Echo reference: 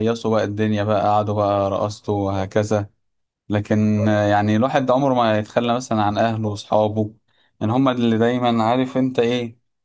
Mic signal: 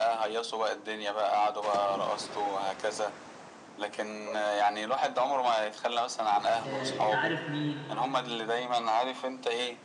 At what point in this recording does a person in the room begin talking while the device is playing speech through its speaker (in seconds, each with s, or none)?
6.6 s